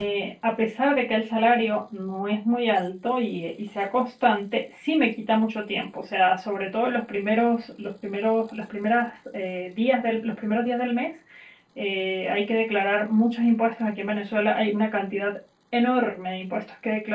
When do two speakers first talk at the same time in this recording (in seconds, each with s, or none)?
none